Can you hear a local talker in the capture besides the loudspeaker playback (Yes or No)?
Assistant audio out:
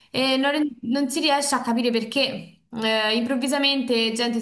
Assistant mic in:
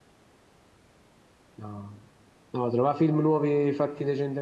Yes